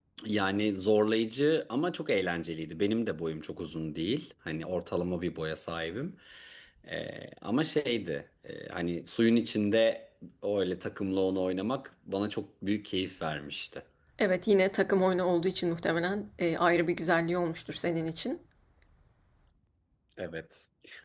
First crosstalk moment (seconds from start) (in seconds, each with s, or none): none